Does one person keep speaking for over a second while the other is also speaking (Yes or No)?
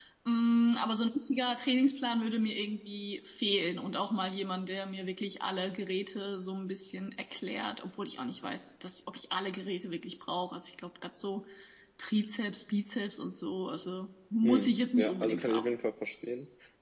Yes